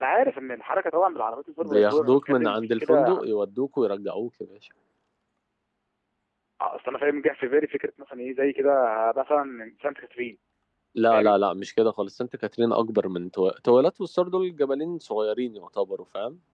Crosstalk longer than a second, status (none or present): present